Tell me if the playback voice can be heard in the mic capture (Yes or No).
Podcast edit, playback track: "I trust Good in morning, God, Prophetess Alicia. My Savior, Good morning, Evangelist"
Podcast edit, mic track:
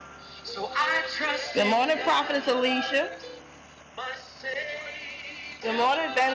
Yes